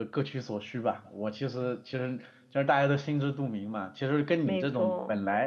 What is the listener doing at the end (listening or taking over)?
listening